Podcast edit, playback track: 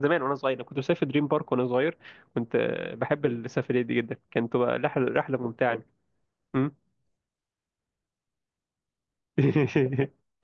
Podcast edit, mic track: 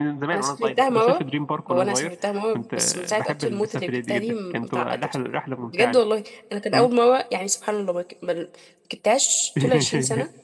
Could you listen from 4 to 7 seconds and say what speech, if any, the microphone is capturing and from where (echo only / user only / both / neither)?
both